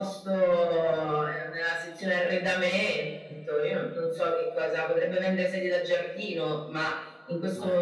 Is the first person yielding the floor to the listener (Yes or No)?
No